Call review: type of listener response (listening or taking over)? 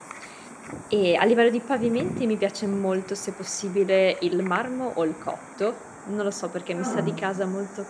listening